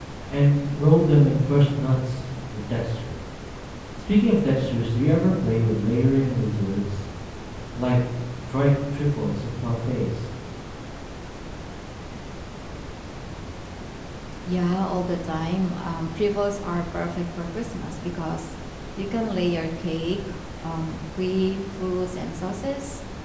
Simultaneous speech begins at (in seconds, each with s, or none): none